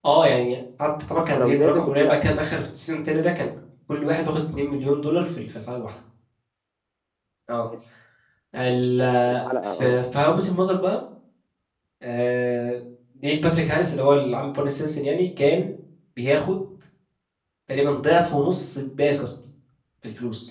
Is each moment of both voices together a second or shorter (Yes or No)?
No